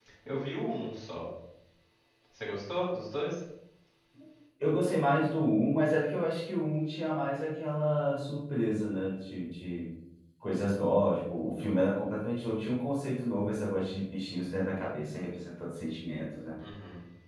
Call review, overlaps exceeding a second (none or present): none